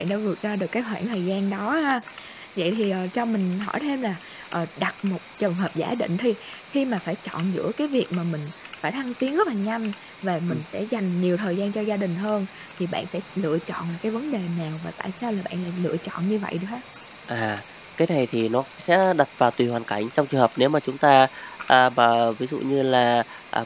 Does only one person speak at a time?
Yes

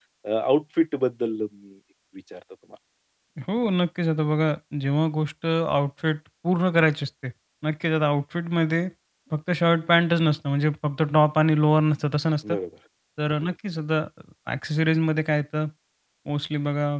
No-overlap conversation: Yes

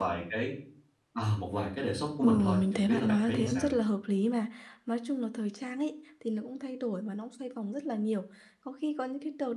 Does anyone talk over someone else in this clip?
Yes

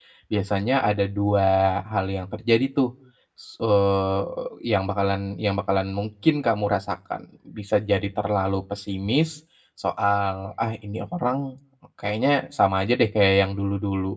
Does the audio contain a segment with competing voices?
No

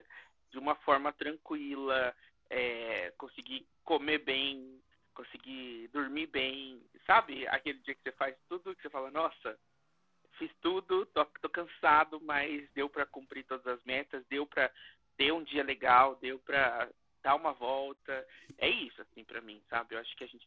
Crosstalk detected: No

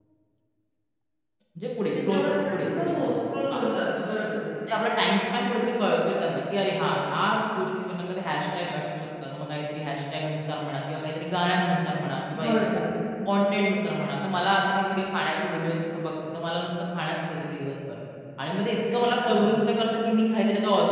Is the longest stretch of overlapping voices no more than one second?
No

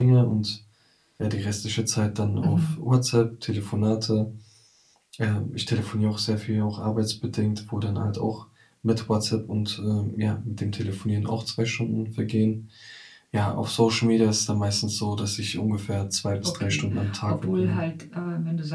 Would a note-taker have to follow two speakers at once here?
Yes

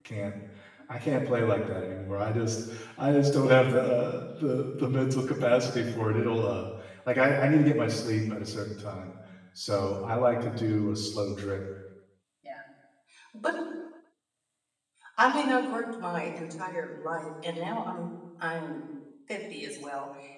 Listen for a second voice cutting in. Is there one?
No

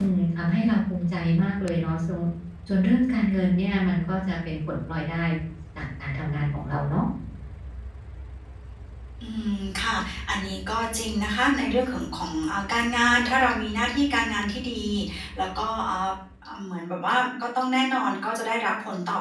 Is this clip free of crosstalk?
Yes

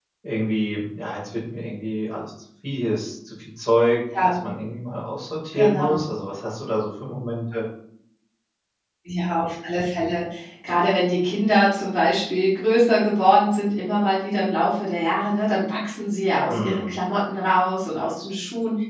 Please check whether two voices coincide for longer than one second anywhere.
No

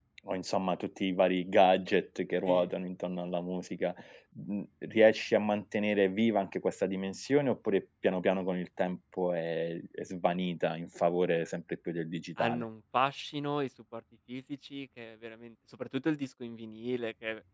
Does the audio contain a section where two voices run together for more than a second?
No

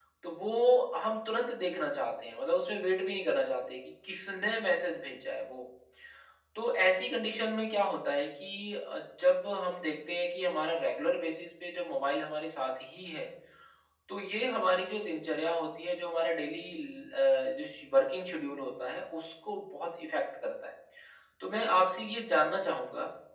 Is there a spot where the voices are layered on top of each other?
No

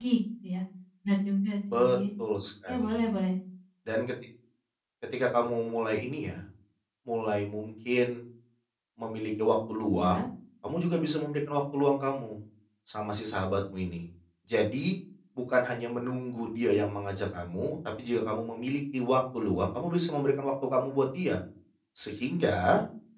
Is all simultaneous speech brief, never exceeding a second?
Yes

